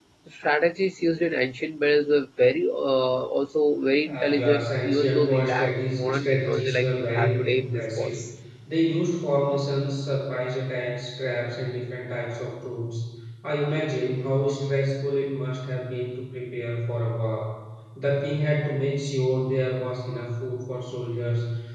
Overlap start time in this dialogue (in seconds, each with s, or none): 4.0 s